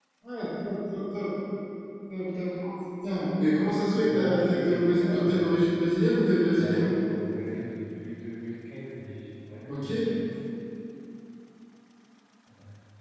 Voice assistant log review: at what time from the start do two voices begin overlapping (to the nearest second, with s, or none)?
4 s